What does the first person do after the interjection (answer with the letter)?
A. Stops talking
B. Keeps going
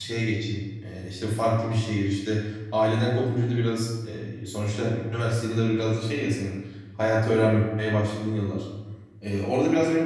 B